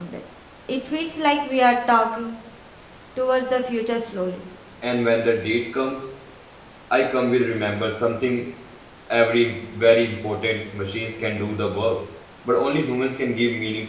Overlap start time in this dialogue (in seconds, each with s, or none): none